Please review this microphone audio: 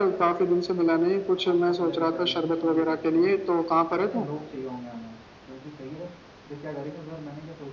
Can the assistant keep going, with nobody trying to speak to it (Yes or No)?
No